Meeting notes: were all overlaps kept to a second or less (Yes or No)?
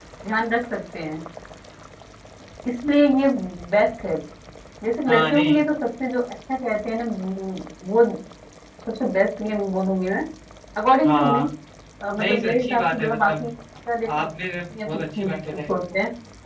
No